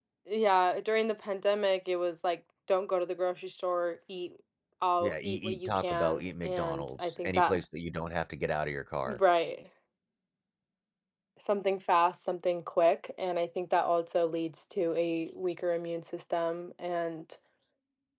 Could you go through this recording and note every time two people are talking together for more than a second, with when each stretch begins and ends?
5.0-7.6

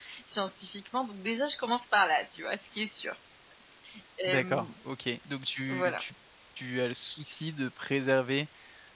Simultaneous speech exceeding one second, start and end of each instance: none

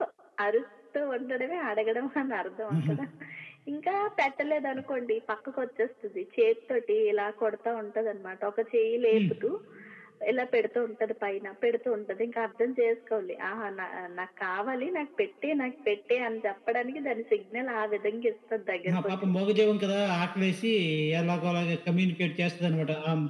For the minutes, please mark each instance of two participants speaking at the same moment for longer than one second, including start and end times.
none

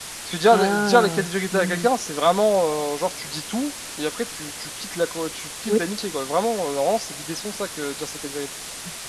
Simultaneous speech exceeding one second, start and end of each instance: 0.5-1.9

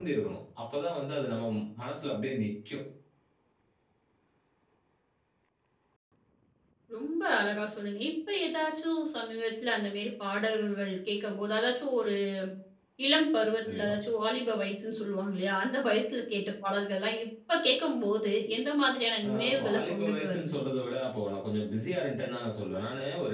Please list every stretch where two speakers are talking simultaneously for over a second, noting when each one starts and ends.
19.3-20.5

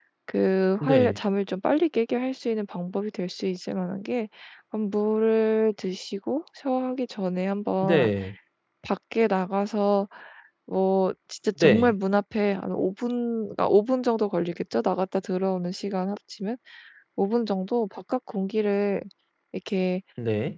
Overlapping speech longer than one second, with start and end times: none

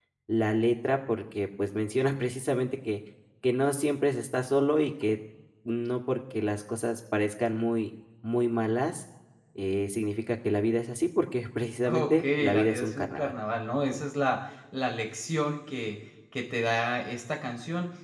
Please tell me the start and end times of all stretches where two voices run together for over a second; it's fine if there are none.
11.9-13.3

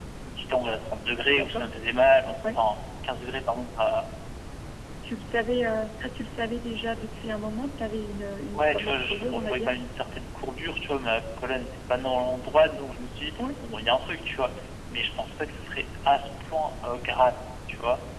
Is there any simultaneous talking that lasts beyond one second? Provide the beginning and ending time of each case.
8.5-9.7

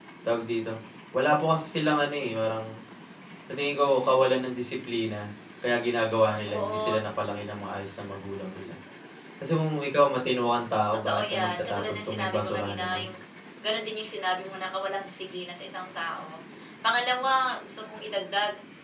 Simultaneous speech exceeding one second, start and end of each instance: 11.0-13.1

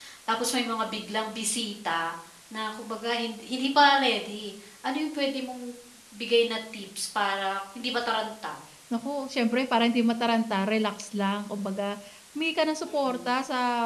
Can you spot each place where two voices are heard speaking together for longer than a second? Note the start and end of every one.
none

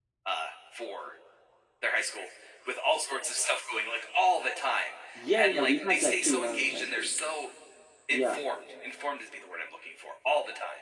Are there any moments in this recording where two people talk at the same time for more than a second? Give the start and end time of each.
5.4-7.1

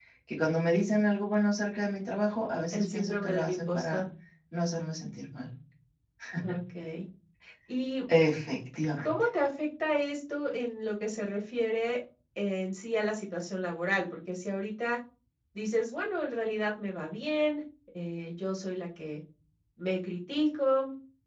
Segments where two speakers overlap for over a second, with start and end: 2.7-4.0

